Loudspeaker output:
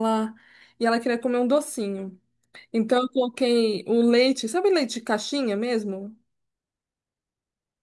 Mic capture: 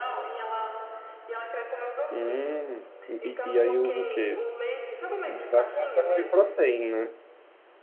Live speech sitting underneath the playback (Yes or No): No